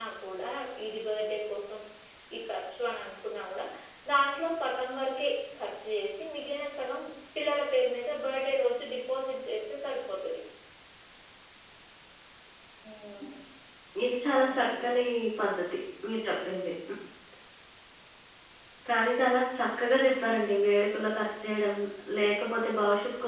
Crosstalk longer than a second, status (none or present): none